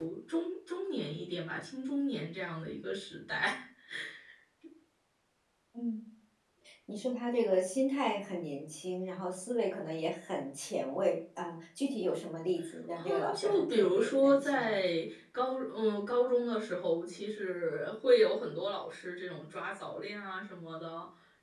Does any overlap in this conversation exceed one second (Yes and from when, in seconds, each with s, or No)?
Yes, from 13.0 s